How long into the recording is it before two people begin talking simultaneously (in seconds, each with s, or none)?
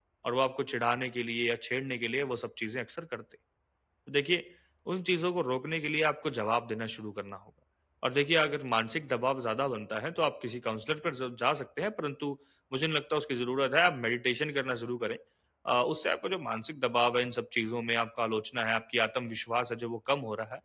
none